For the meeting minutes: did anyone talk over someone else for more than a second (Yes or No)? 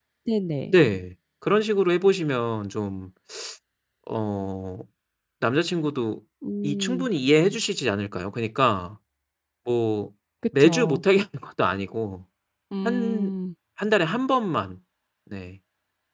No